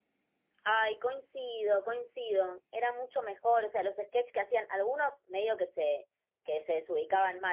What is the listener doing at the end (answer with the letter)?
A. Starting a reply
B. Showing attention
B